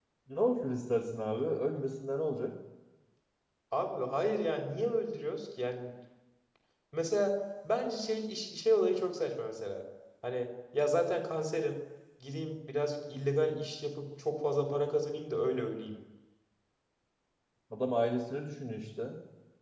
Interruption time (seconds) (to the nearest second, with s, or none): none